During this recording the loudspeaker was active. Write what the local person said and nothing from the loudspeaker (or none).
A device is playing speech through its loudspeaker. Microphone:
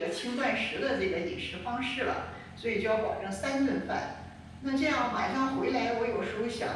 none